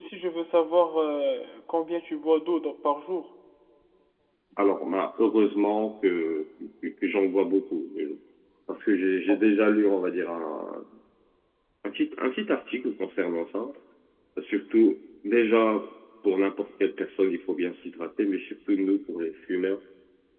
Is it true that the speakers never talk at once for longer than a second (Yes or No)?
Yes